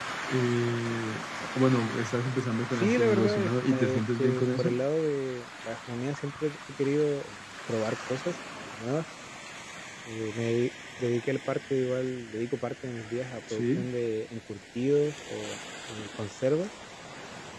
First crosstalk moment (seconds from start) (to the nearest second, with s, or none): 3 s